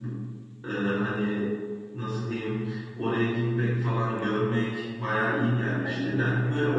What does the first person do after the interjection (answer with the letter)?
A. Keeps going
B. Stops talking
A